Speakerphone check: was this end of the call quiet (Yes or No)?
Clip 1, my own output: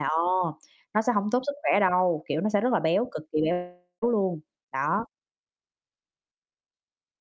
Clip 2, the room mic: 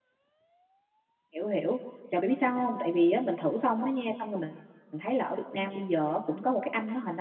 No